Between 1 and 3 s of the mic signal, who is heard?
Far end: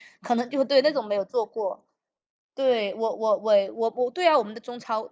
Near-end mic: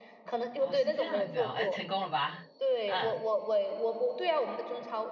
both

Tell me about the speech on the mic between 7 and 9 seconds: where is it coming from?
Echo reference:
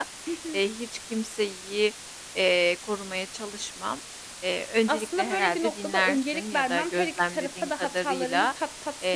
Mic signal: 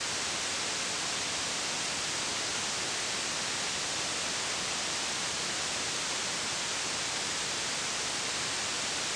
neither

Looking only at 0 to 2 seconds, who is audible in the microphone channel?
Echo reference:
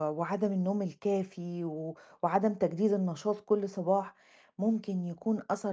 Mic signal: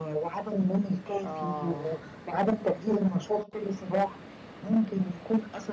both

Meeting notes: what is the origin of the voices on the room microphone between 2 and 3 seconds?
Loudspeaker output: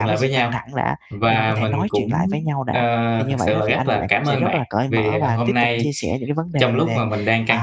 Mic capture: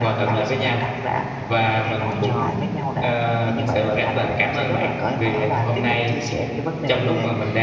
both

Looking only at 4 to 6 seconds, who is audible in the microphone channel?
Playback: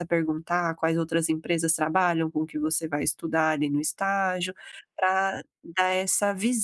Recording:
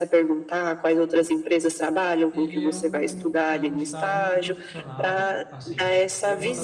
both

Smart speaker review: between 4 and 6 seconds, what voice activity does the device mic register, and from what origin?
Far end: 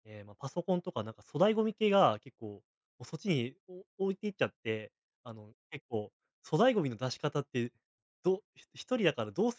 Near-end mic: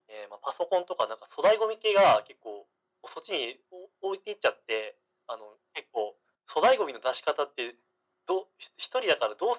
echo only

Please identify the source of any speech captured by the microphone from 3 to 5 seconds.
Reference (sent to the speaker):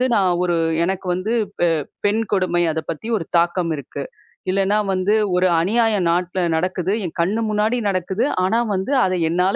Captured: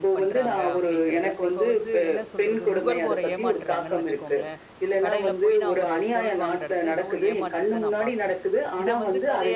both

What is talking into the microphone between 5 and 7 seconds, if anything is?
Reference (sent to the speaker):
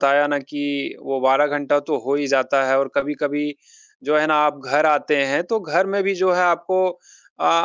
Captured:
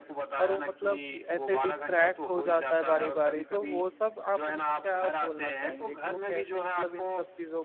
both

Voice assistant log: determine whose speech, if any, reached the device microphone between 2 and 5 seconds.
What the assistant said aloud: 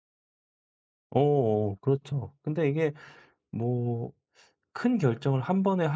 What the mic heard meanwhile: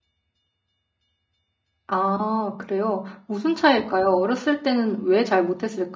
user only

